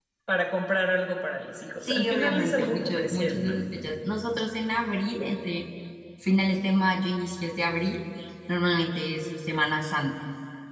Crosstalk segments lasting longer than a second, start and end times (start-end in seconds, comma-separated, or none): 1.9-3.6